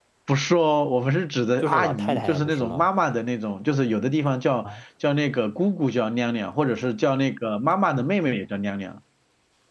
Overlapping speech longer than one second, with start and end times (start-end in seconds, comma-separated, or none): 1.6-2.9